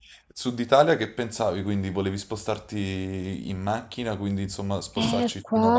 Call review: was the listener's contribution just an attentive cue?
No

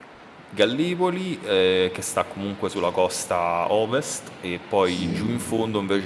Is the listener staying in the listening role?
Yes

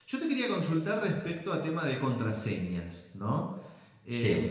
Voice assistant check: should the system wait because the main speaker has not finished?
Yes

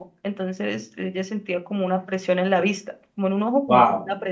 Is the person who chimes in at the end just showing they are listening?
No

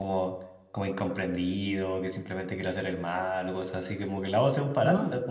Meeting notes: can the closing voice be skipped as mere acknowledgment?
Yes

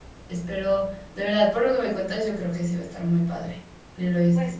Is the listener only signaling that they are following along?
No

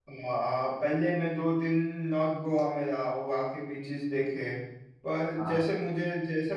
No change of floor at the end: Yes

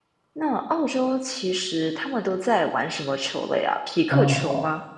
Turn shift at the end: Yes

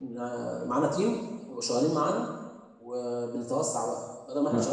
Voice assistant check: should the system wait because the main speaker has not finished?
Yes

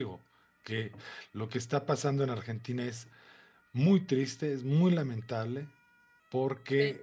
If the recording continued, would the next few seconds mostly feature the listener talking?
No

